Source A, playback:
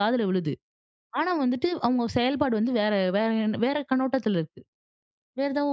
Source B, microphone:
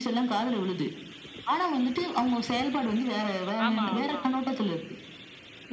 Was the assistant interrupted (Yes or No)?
Yes